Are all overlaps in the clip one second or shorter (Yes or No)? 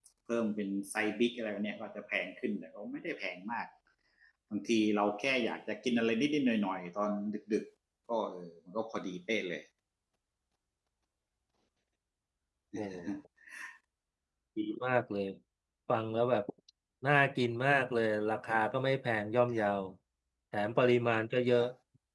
Yes